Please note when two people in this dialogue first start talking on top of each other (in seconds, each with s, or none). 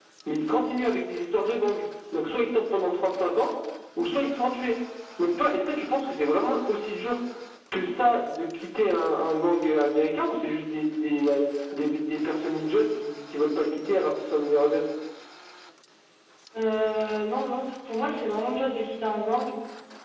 none